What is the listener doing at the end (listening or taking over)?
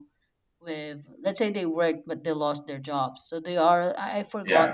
listening